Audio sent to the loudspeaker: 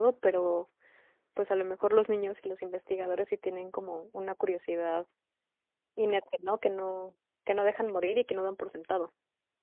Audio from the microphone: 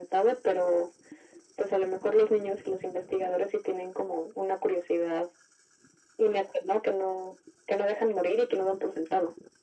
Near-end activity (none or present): none